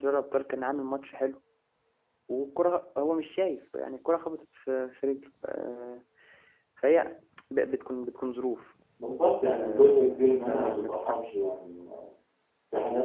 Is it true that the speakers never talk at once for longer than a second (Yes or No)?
No